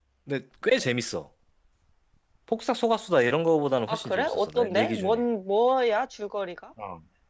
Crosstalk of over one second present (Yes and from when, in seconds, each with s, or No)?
Yes, from 3.9 s